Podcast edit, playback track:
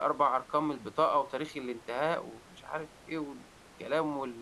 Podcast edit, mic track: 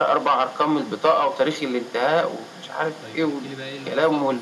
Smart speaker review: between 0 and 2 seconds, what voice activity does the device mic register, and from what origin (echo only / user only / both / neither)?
echo only